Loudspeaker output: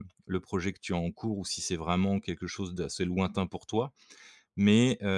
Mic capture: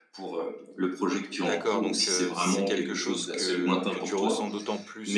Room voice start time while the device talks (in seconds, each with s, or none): 1.4 s